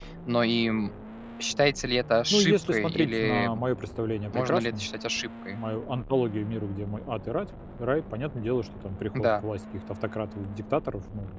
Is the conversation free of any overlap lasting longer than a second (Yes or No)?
No